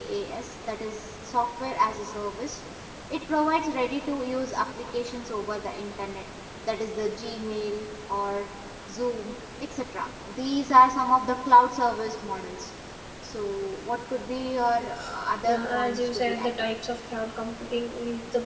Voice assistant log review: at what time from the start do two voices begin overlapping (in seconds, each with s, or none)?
15.4 s